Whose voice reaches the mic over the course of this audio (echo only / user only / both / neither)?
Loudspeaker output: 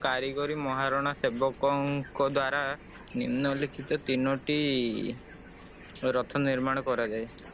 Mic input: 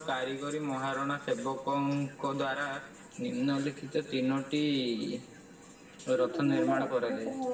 both